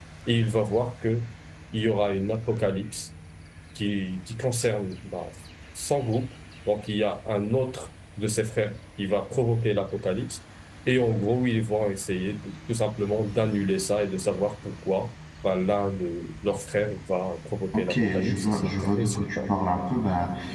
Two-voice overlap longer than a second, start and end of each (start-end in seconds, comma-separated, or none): 17.7-19.6